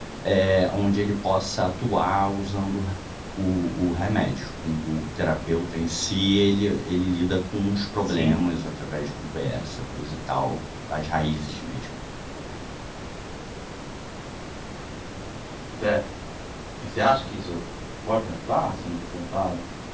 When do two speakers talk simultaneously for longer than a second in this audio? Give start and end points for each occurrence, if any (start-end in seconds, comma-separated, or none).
none